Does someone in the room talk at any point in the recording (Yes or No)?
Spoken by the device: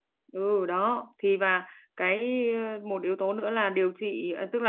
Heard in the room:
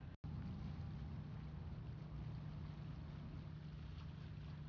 No